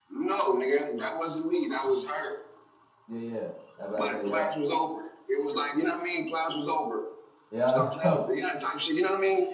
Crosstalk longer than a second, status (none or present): none